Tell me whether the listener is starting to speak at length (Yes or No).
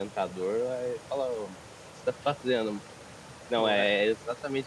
No